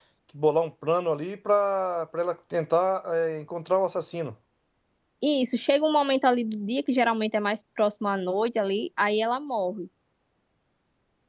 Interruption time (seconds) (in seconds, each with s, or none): none